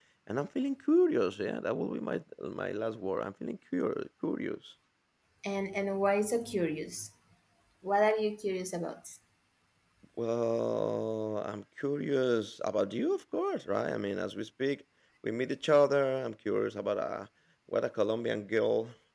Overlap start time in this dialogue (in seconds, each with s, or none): none